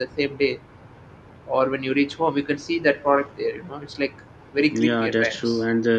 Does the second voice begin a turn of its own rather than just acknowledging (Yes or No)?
Yes